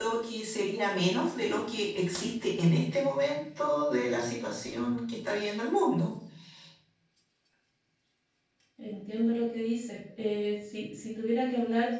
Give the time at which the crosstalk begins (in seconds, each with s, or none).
none